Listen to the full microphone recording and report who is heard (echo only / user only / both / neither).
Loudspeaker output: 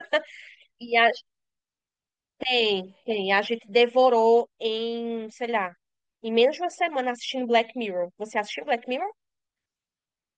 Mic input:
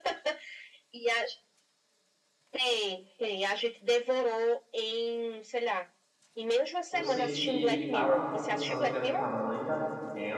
both